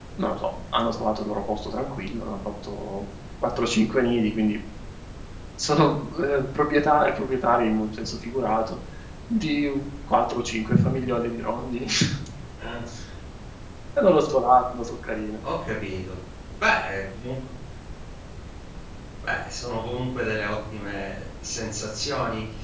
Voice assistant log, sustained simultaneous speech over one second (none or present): none